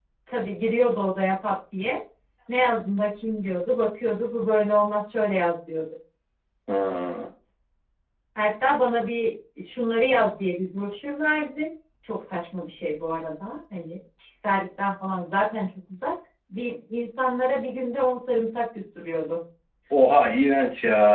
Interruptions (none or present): none